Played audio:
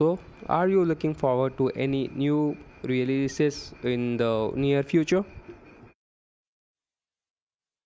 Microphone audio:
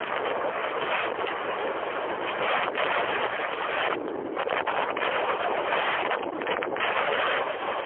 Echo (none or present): none